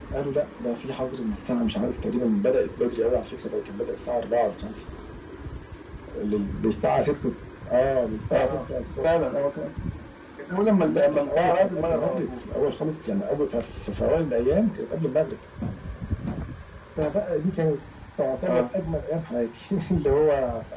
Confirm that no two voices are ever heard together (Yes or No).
No